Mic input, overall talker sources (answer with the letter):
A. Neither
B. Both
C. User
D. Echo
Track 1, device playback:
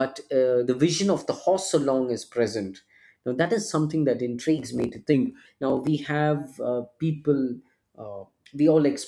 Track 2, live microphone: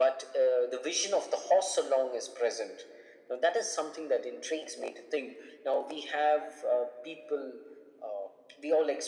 D